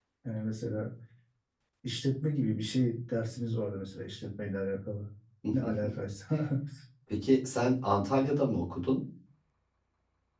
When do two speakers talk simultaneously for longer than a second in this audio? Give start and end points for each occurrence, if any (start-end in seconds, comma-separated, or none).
none